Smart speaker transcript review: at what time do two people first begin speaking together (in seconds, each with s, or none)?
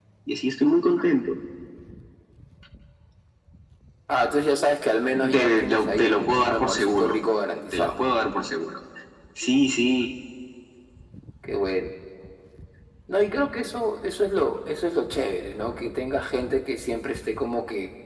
5.3 s